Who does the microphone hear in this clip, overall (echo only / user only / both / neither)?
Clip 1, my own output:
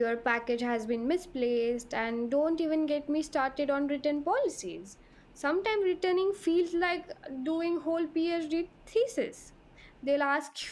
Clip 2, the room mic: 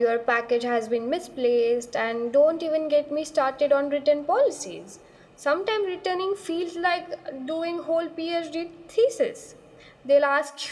echo only